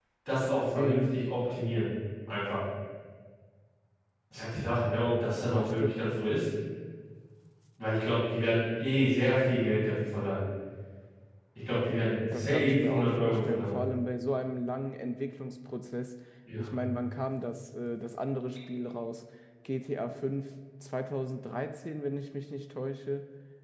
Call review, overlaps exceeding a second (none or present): present